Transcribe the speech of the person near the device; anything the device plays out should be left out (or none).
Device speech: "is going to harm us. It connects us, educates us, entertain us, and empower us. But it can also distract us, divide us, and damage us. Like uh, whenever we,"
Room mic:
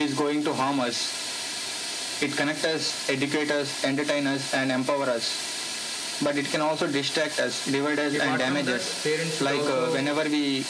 apart from that parents should also